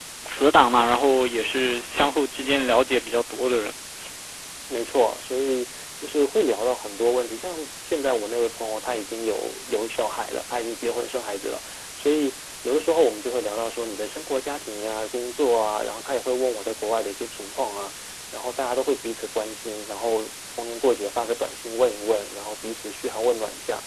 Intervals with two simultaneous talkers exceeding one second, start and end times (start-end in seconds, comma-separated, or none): none